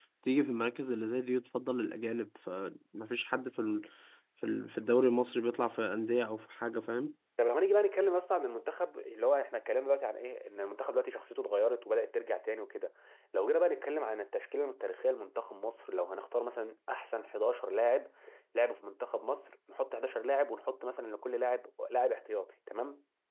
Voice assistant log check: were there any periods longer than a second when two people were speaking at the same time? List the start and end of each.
none

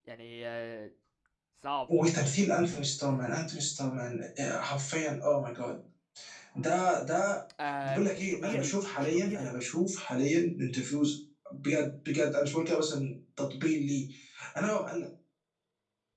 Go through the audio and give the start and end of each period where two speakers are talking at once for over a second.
7.8-9.5

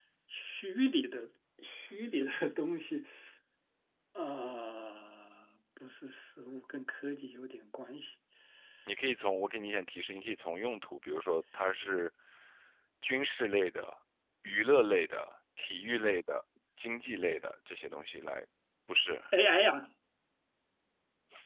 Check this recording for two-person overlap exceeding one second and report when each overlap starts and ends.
none

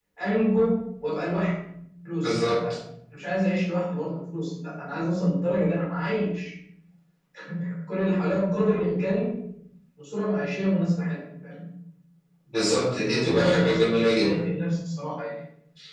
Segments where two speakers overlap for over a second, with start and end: 12.6-14.3

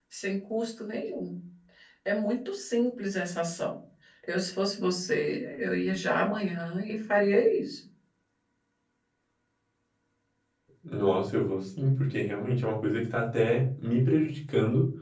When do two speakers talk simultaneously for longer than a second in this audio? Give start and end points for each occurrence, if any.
none

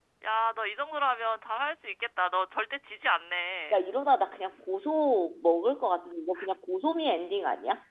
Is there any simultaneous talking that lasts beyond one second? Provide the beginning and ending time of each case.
none

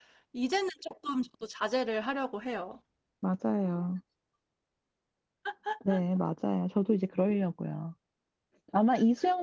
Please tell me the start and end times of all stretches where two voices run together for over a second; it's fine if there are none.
none

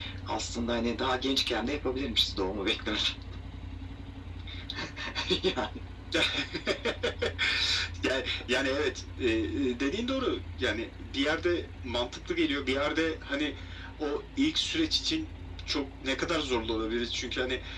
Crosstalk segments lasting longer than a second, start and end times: none

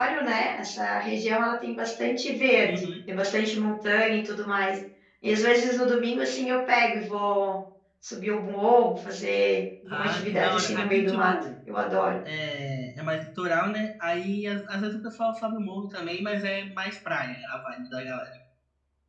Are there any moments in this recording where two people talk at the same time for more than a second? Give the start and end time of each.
9.9-11.3

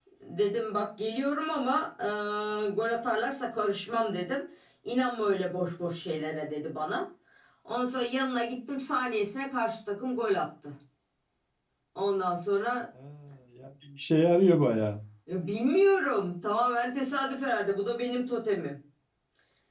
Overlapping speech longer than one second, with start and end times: none

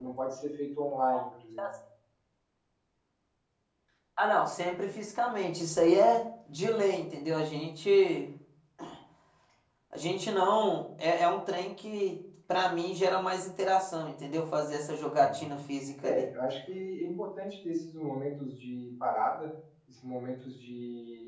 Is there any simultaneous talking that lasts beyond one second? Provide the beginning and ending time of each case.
none

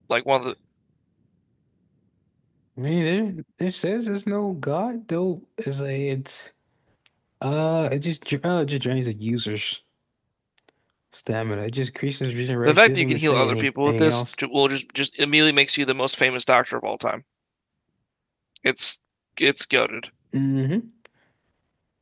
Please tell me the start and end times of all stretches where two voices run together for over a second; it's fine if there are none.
12.7-14.3

